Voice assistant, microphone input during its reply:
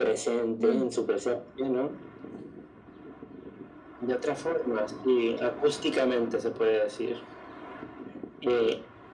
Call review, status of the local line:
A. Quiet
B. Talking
B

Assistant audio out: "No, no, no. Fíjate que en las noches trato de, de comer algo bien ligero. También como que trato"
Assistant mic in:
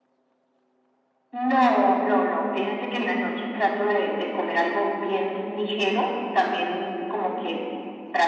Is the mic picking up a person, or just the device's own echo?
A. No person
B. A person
A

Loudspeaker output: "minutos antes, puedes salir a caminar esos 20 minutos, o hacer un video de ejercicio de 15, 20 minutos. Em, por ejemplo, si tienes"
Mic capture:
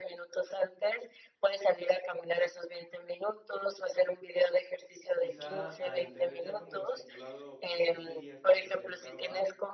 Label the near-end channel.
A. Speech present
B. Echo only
A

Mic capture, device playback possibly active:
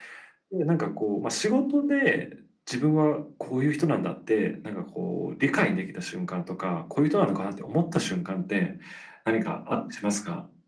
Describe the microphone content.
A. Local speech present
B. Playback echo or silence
B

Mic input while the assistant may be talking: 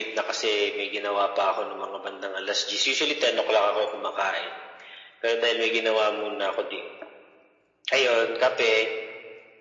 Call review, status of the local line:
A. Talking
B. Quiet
B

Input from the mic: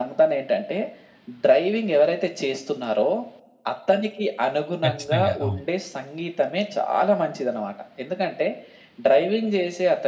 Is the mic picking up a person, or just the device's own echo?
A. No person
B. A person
B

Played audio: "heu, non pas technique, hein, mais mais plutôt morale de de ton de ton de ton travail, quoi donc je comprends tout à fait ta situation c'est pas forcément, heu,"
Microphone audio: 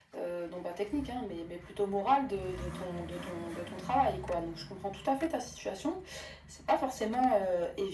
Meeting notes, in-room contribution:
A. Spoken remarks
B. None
B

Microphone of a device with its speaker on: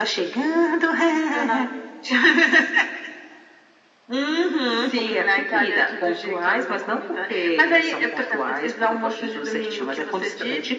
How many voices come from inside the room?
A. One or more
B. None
B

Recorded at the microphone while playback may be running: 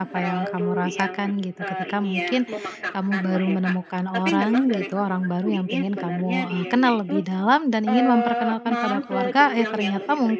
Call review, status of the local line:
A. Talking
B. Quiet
A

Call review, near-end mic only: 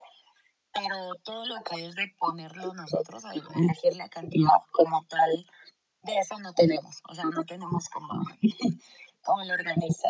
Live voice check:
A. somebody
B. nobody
B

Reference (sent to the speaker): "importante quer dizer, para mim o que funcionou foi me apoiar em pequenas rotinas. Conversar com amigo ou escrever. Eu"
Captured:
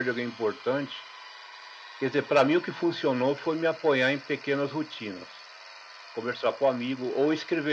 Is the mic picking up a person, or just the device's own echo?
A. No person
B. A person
A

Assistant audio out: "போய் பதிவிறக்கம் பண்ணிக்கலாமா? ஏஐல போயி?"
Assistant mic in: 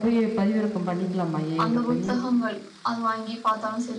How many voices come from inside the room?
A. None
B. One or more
B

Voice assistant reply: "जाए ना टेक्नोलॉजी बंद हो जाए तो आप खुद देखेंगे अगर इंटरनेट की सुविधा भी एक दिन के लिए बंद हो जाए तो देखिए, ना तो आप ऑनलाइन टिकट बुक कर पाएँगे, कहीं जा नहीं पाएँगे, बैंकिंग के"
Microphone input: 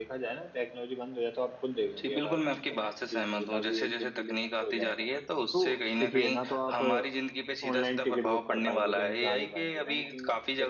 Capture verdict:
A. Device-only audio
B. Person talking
B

